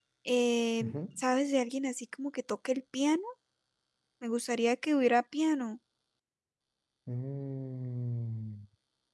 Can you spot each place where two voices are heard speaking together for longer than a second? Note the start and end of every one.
none

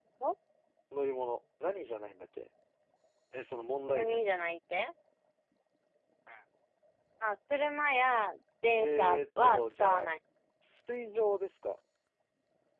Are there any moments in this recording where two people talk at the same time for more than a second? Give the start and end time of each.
8.8-10.1

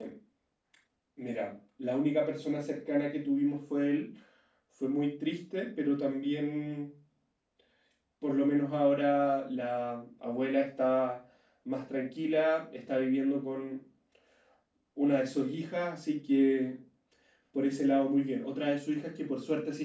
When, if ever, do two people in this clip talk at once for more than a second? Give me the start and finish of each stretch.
none

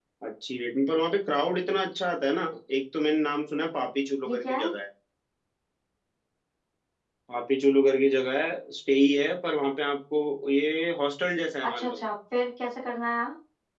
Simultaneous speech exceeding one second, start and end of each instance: none

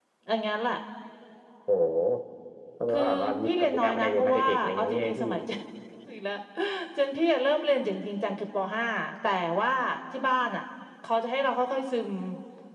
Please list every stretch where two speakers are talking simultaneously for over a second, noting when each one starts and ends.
2.9-5.3

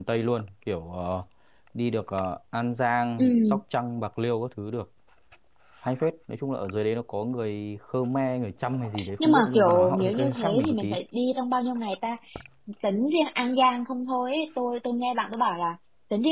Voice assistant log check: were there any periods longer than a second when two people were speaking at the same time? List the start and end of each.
9.2-11.0

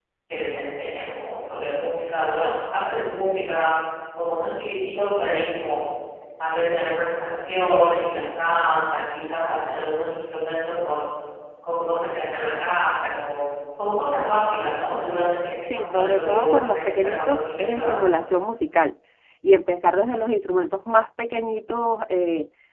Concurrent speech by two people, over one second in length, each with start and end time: 15.8-17.9

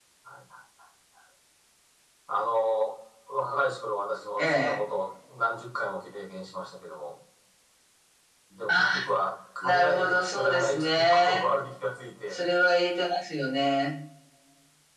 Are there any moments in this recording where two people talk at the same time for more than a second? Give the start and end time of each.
9.6-11.5

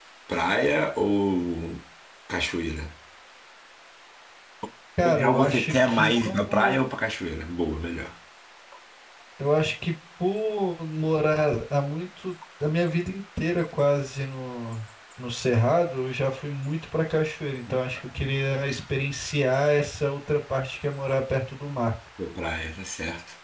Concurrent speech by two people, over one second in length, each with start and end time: 5.0-6.9

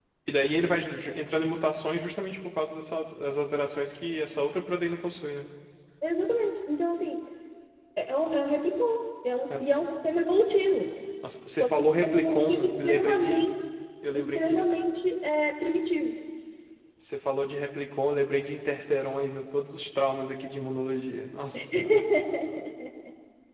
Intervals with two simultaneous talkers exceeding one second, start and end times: 11.6-13.4

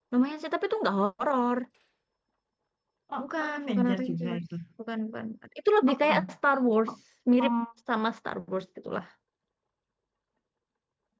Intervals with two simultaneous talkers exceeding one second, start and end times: 3.2-4.4

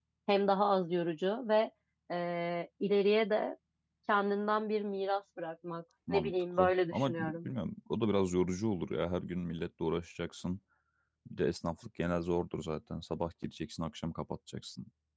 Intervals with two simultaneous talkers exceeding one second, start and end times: 6.1-7.5

